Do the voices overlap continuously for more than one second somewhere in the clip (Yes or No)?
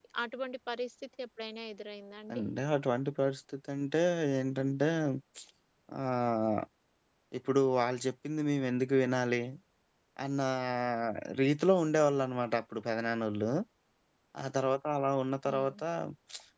No